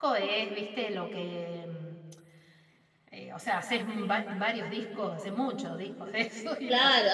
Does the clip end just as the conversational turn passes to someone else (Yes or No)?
Yes